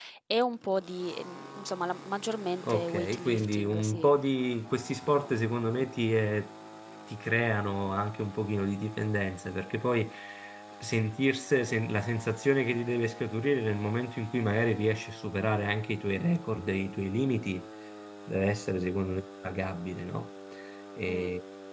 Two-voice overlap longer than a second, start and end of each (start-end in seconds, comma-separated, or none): 2.7-4.1